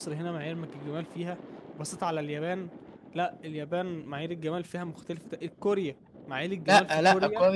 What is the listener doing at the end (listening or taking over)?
taking over